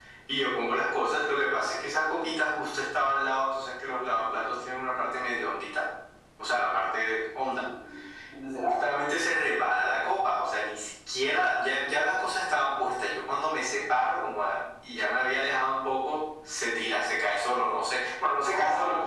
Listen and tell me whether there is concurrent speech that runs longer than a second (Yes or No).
No